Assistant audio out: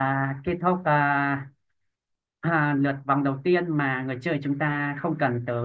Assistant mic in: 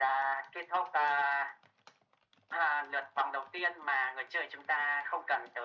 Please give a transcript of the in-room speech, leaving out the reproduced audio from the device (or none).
none